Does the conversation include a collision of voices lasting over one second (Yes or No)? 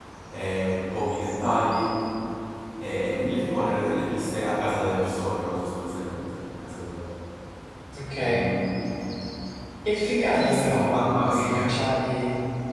Yes